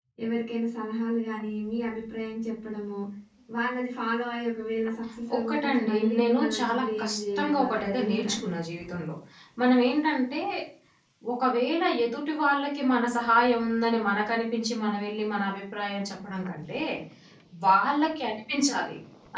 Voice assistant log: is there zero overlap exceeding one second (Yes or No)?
No